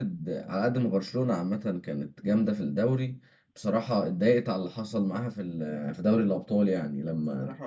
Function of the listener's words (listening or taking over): taking over